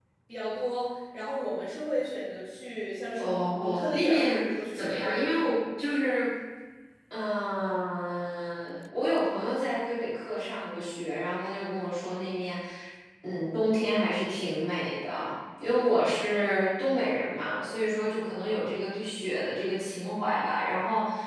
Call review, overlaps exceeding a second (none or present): present